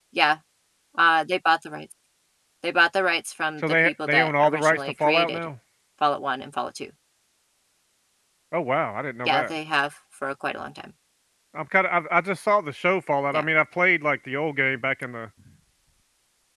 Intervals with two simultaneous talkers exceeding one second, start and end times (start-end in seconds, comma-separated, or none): 3.8-5.4